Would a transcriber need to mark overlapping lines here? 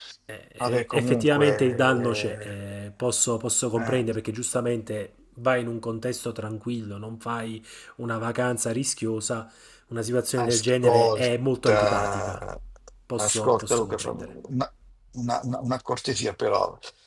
Yes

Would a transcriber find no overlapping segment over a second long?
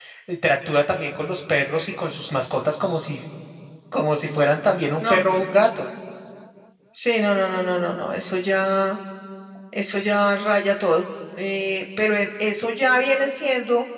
Yes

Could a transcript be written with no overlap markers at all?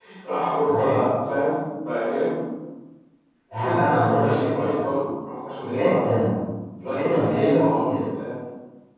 No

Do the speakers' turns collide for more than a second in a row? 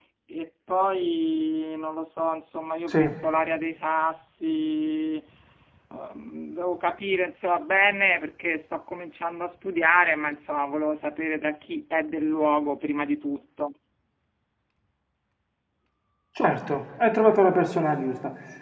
No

